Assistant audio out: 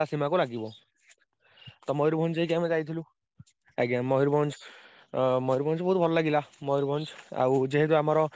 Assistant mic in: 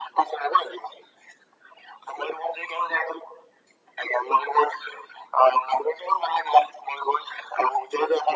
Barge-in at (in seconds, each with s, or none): none